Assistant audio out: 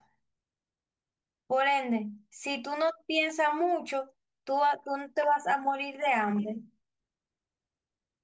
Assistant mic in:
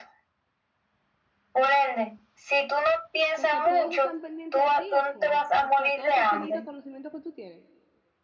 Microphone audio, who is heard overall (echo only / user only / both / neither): both